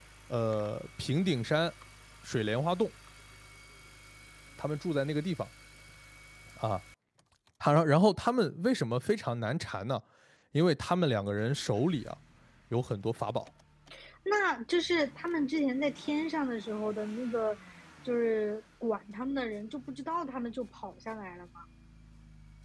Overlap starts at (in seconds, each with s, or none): none